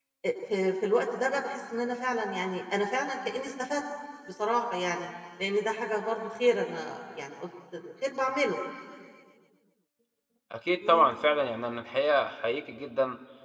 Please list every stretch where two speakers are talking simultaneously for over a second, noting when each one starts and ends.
none

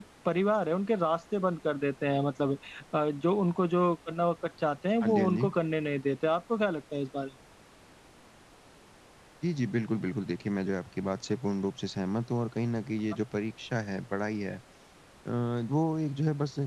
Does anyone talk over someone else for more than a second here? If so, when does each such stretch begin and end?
none

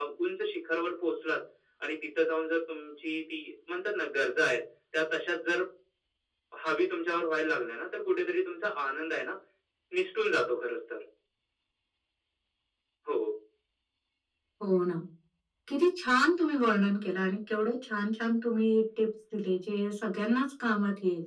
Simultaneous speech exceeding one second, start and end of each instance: none

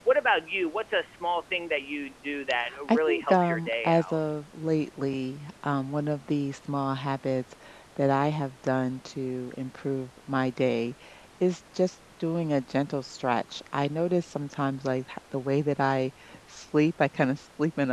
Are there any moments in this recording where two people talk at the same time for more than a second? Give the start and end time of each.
2.9-4.2

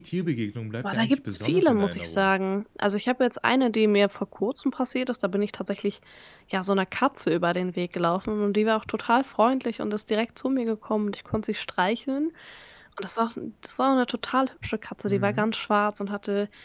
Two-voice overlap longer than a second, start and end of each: 0.8-2.3

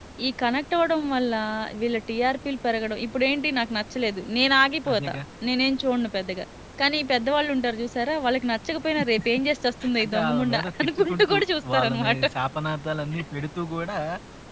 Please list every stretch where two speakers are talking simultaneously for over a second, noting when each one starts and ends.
10.0-11.3

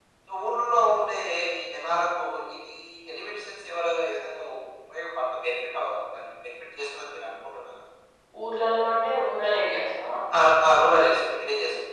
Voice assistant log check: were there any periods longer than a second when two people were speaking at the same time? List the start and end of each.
none

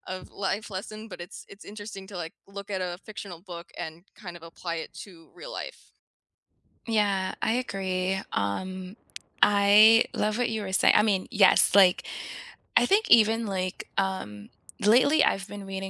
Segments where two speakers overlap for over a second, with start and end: none

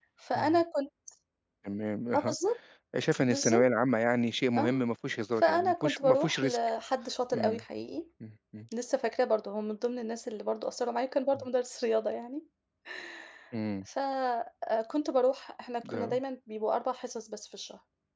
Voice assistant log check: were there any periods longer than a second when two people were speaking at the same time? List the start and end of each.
5.4-6.6

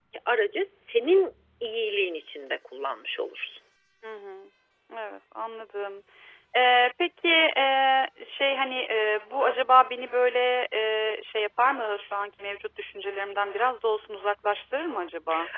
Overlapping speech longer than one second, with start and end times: none

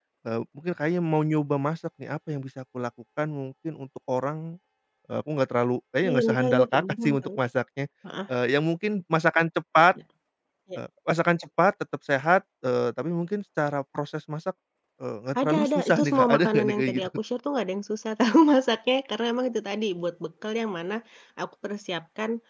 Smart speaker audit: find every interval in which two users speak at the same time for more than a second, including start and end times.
6.1-7.3, 15.4-17.1

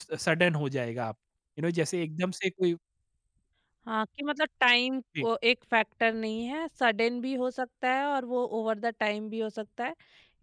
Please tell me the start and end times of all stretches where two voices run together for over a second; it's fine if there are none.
none

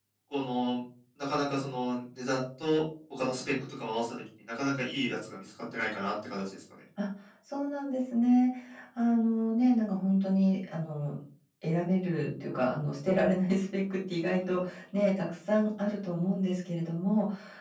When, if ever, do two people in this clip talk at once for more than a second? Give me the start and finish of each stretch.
none

